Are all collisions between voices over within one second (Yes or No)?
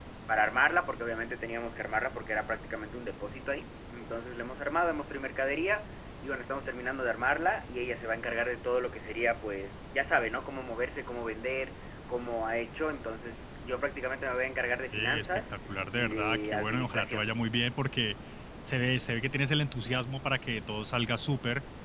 No